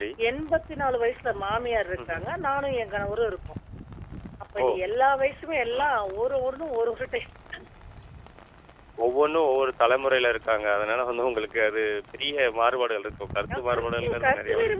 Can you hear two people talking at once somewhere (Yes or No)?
Yes